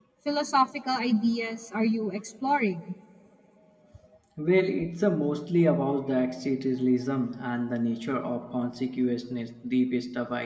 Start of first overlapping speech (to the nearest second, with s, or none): none